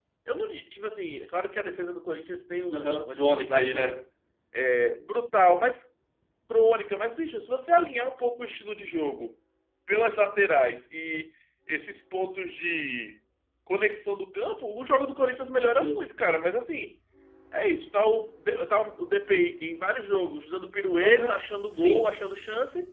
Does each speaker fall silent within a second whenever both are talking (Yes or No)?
No